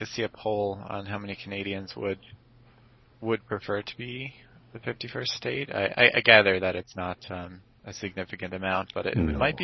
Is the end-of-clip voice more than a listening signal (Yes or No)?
No